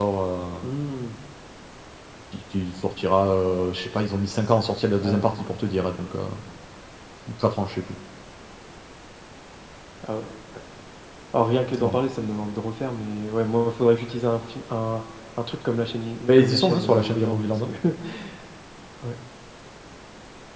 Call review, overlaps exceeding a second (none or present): present